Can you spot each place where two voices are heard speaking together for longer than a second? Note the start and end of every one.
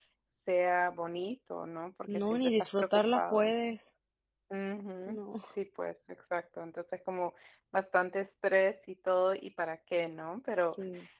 2.1-3.5

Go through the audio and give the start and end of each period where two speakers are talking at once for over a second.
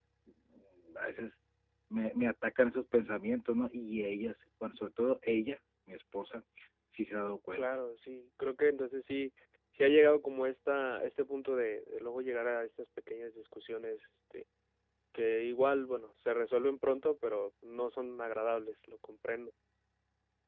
none

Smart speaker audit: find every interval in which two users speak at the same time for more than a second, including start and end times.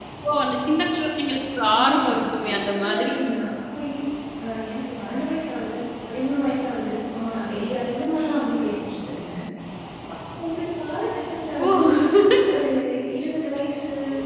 1.7-3.1

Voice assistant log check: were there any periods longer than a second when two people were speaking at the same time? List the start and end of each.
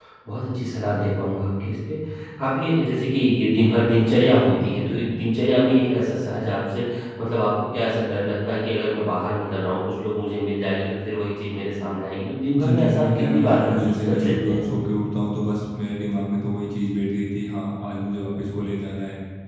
12.6-14.6

